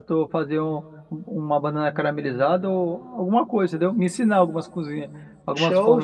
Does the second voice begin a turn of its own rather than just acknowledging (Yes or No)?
Yes